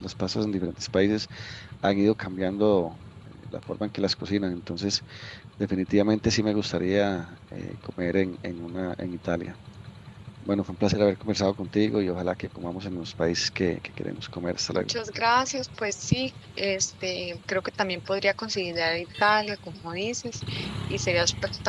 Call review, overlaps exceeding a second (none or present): none